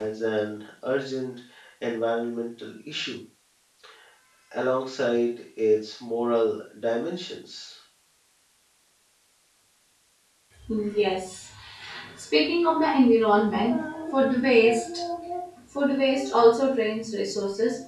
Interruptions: none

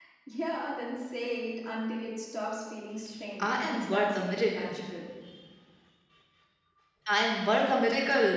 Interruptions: present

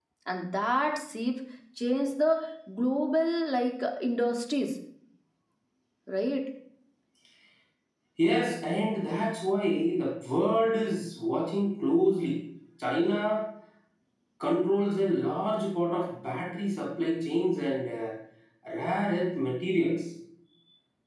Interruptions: none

